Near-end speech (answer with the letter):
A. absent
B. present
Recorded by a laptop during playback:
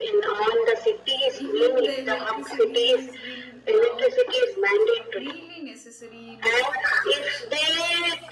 B